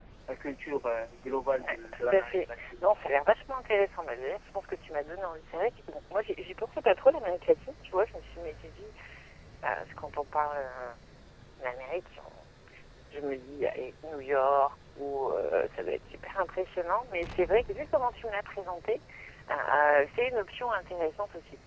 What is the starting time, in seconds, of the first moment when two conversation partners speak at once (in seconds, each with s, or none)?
1.6 s